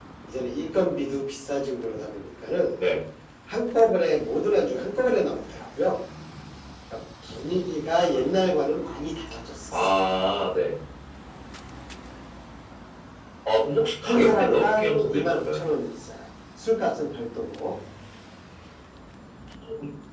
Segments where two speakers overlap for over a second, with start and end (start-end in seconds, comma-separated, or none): 14.1-15.7